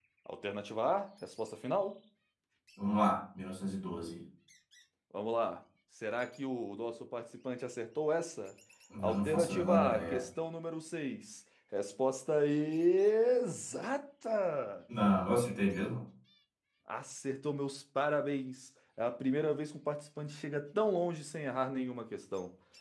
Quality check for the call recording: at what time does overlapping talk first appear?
9.0 s

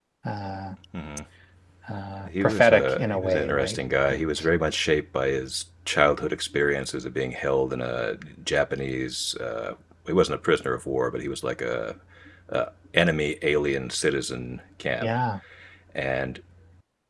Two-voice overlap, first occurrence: 2.4 s

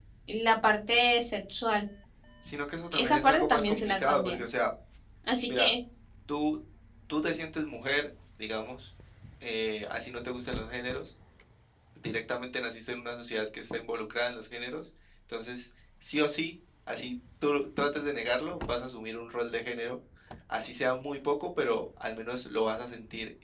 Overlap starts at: 2.9 s

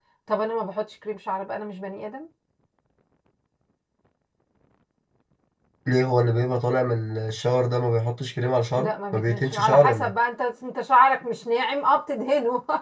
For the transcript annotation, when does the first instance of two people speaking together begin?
8.8 s

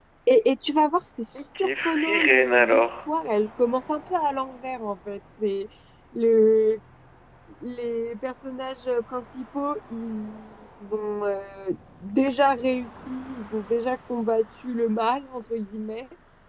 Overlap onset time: 1.4 s

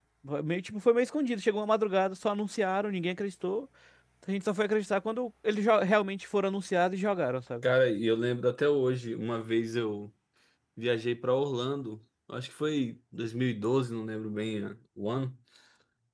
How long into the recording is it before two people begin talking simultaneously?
none

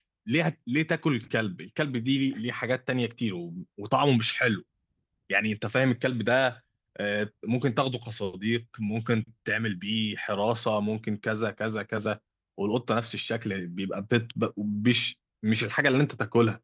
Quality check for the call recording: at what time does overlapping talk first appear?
none

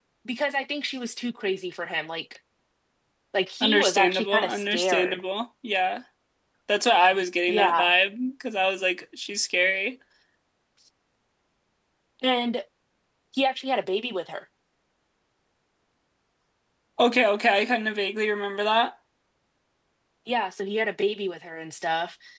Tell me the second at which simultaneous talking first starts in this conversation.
3.6 s

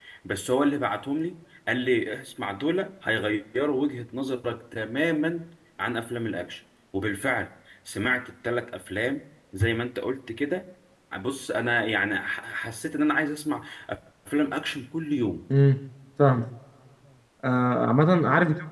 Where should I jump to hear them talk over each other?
none

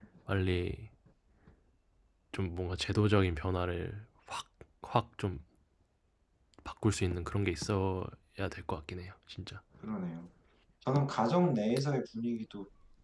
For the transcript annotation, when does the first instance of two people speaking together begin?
none

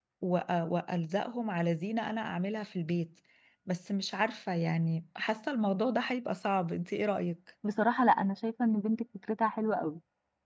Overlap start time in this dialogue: none

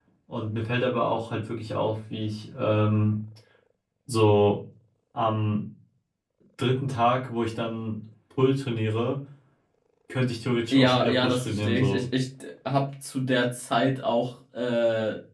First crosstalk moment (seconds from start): 10.7 s

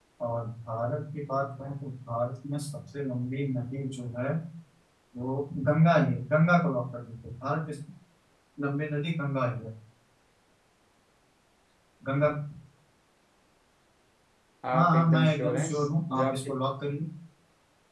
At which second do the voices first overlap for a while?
14.7 s

